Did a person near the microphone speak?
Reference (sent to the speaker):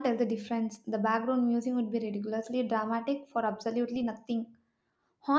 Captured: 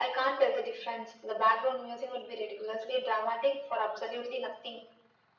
No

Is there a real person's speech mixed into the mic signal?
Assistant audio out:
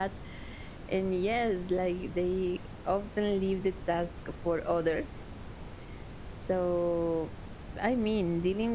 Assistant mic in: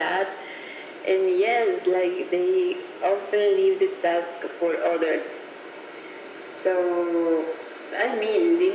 No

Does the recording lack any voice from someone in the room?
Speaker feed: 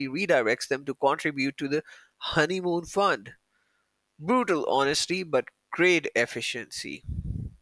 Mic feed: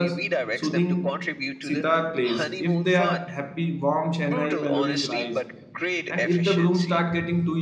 No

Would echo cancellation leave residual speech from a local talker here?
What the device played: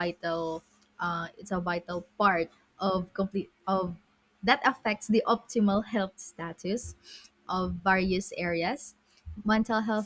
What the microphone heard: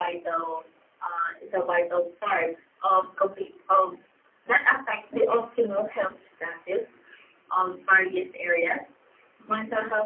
No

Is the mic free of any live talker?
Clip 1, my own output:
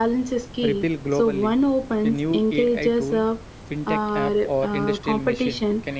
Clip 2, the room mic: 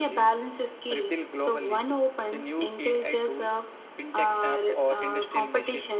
Yes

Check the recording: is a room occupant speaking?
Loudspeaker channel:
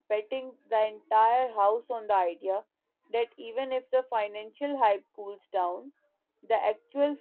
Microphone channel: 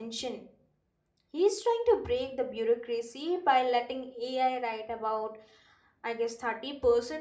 Yes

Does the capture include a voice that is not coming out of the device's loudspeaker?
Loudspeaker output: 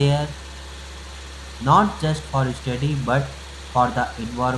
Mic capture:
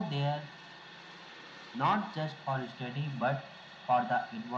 No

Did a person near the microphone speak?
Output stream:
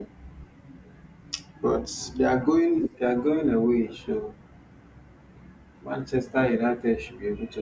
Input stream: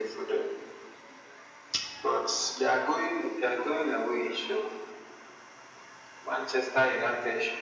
No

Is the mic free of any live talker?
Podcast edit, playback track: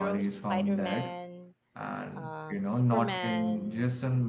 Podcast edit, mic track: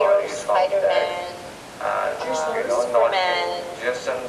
No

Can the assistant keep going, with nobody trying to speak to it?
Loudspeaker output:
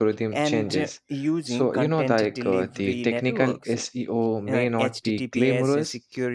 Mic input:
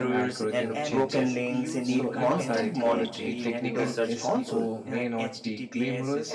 No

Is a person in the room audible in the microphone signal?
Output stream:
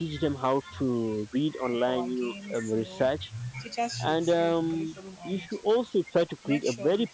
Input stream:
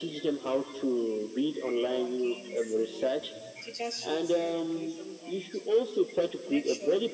No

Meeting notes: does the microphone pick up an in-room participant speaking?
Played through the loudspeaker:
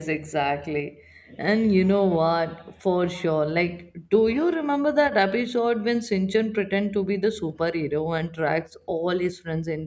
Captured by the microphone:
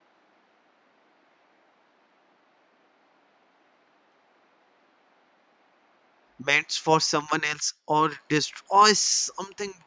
Yes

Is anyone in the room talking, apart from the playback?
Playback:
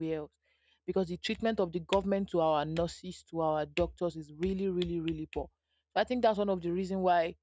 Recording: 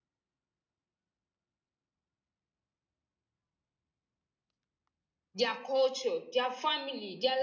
Yes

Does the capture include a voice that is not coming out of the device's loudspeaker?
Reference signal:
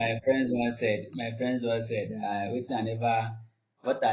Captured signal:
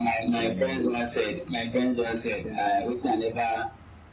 Yes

